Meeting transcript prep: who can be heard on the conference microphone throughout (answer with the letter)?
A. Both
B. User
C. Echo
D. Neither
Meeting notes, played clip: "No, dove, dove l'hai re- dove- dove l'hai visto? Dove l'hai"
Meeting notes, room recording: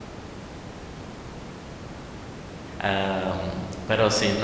B